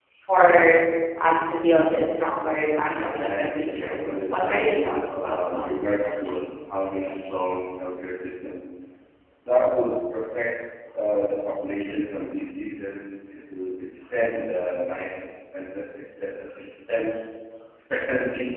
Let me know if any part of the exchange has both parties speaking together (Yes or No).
Yes